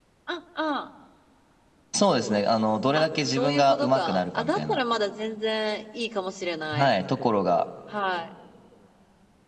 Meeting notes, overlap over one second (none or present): present